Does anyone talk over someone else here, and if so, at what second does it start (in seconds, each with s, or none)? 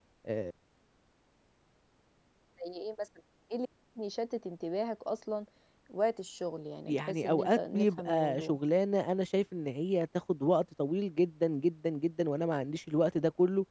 6.9 s